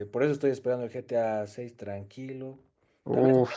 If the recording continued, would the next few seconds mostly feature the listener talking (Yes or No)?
No